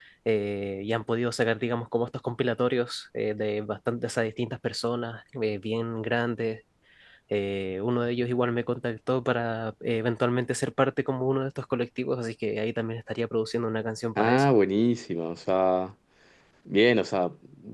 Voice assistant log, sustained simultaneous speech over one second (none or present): none